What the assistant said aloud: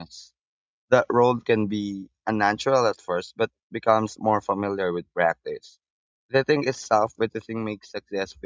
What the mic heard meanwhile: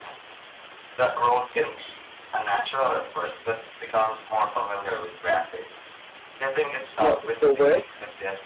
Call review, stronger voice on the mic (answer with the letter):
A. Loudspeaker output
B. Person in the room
B